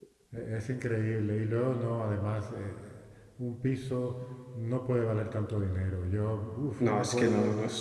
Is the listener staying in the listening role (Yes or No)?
No